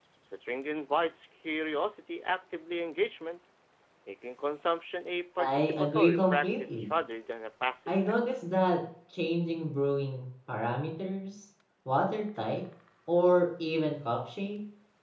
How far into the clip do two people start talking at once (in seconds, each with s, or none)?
5.4 s